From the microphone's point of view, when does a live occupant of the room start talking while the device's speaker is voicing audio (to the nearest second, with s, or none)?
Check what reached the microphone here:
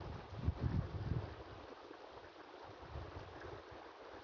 none